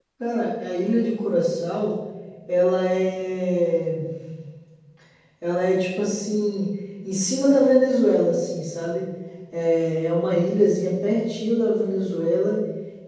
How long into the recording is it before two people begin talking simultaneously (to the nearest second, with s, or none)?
none